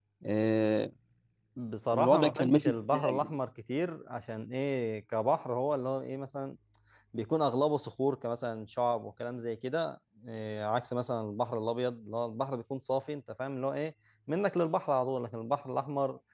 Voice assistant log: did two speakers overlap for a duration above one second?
Yes, from 1.9 s

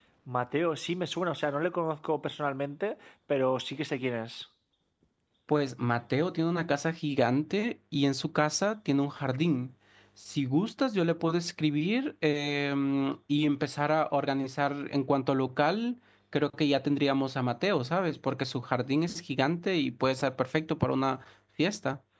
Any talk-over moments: No

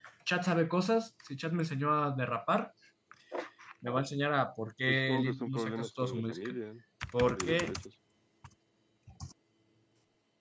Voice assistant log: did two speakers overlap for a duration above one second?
Yes, from 4.9 s

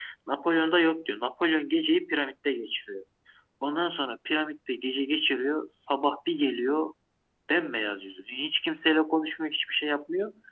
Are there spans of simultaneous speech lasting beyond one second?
No

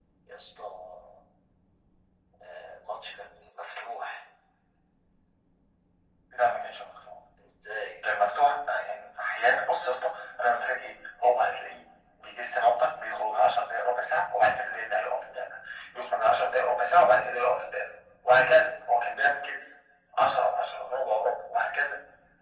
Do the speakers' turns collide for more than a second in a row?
No

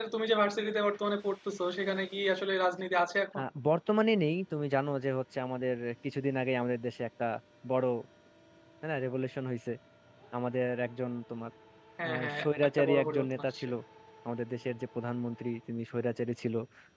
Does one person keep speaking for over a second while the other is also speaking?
Yes, from 12.1 s

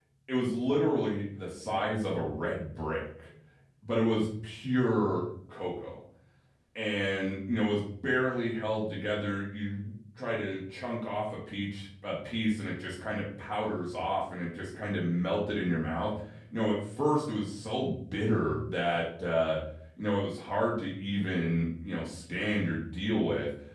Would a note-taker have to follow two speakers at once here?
No

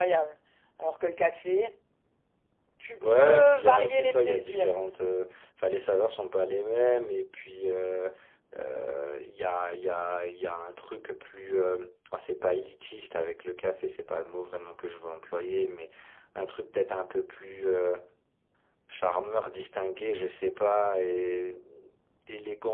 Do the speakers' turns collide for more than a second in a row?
Yes, from 3.0 s

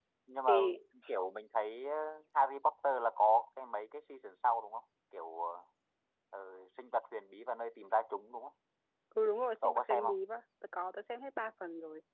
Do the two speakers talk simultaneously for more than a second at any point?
No

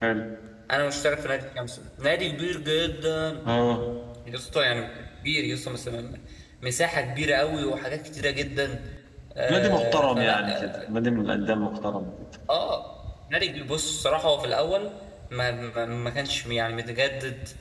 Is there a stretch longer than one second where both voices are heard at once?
Yes, from 9.5 s

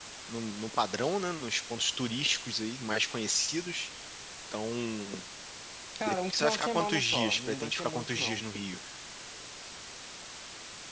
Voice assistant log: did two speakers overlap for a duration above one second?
Yes, from 6.0 s

